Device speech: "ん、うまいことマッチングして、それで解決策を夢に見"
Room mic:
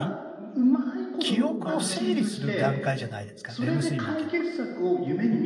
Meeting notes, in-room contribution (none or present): present